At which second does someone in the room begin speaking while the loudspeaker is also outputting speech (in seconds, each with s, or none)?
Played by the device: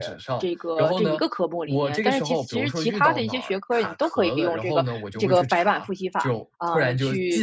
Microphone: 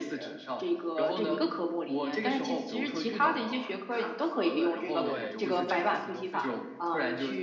5.0 s